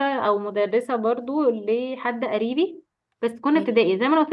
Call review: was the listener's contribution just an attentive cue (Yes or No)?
Yes